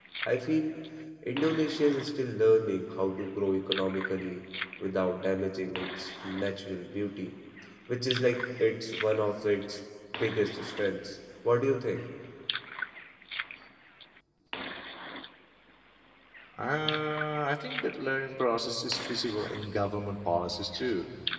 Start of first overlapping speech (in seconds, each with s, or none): none